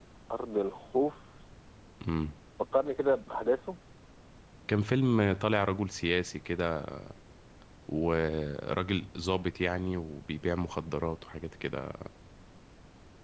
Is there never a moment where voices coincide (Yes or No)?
Yes